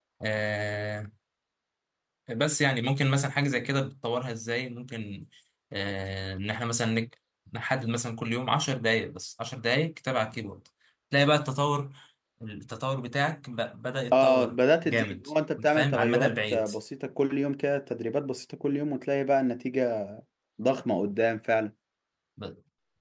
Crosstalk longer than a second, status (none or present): present